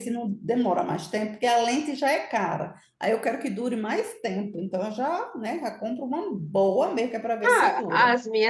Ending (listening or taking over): taking over